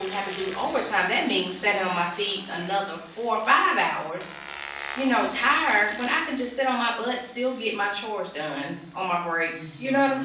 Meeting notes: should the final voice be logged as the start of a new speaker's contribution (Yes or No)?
Yes